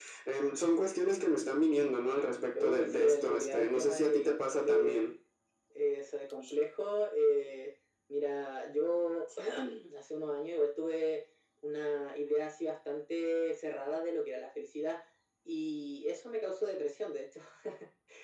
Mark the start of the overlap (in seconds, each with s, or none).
2.5 s